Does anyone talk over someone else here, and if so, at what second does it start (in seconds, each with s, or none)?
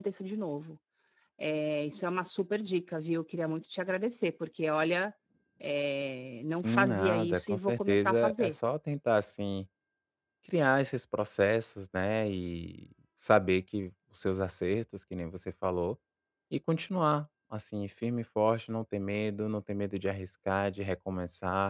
6.6 s